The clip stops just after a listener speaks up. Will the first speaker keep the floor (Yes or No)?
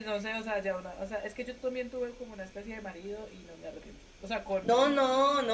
No